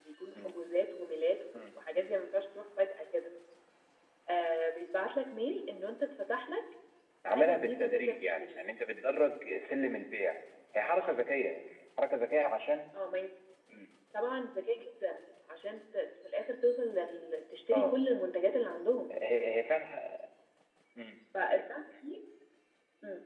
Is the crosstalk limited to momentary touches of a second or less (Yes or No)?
No